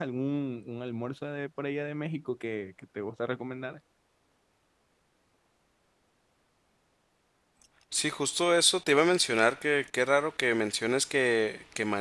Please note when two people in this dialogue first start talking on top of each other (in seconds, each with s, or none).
none